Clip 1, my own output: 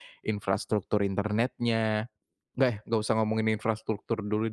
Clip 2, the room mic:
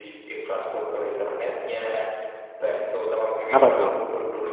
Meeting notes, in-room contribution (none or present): present